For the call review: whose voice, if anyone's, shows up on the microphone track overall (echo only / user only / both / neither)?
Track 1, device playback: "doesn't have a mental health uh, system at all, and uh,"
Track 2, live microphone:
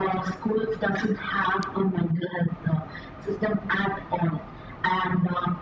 echo only